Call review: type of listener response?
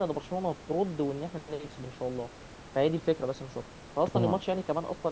listening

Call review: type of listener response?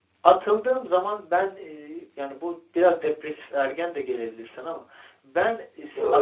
listening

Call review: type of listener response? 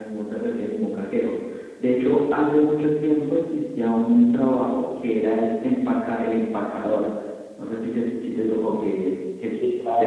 taking over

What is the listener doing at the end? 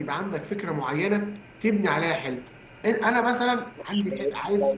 taking over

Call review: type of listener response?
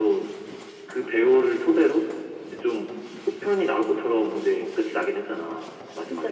taking over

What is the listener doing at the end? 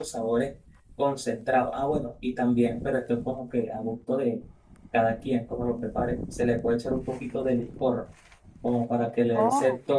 listening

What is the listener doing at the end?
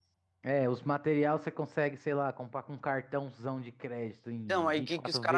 taking over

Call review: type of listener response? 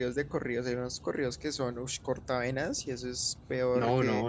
taking over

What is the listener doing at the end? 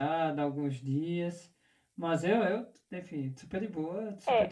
taking over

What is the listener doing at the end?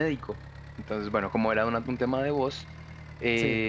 listening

